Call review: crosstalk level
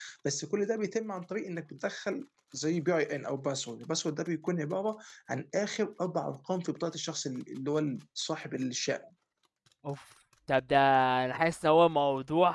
none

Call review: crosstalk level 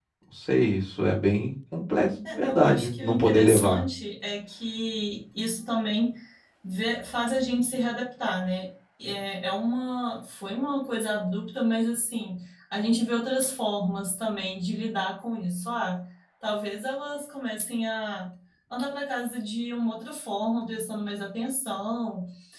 present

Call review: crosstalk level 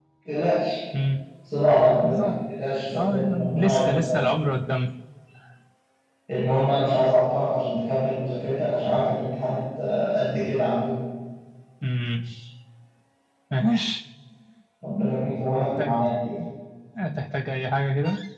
present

